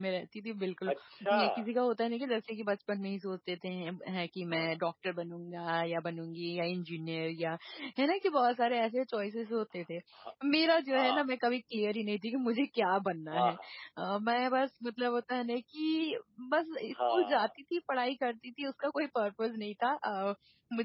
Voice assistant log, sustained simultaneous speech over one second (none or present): none